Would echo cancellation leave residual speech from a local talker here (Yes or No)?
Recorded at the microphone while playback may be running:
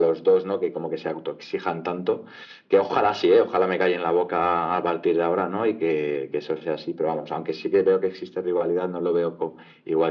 No